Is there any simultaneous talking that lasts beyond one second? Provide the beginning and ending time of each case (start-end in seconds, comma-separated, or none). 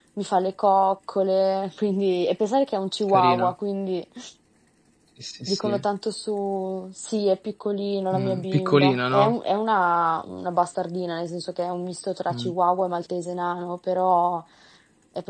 8.1-9.3